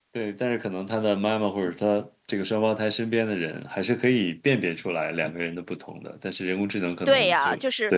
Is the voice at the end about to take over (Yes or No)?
Yes